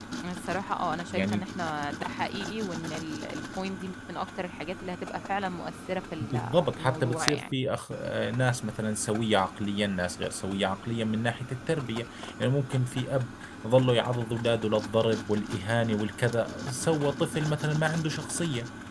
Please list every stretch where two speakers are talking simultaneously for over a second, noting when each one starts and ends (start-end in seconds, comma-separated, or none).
6.2-7.5